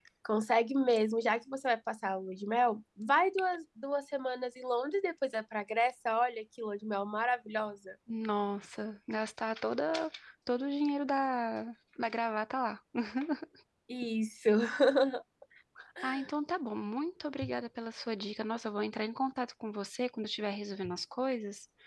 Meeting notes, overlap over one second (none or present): none